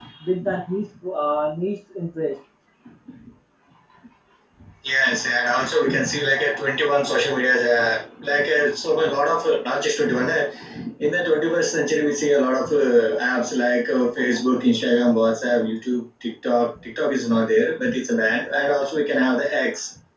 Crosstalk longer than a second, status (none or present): none